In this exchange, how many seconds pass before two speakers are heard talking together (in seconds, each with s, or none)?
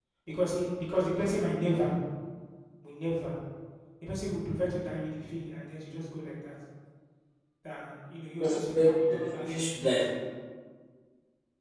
8.4 s